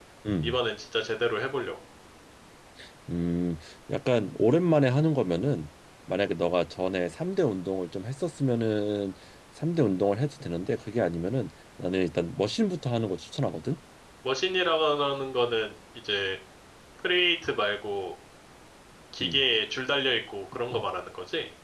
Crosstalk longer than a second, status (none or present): none